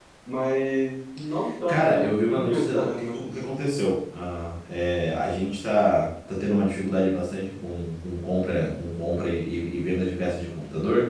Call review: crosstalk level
present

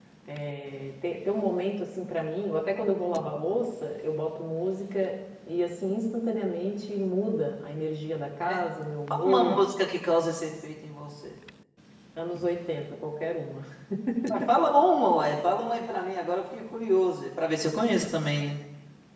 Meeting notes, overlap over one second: none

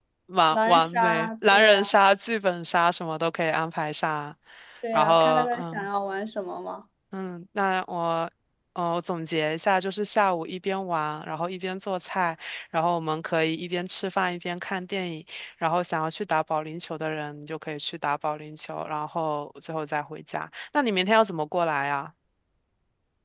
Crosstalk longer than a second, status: present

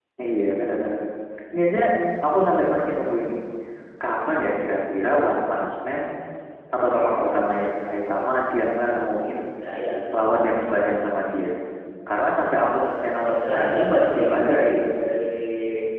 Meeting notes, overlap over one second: present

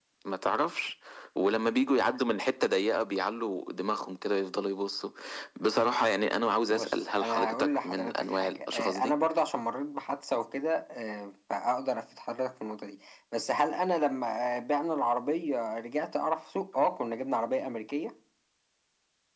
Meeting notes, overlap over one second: present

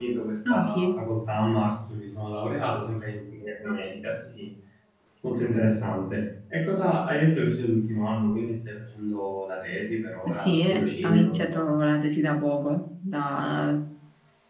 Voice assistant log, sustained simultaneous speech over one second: present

